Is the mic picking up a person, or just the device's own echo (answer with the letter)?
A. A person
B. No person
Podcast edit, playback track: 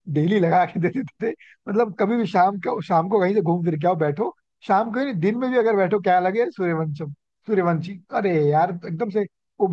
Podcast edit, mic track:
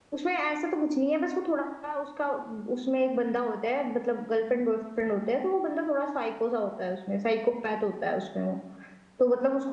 A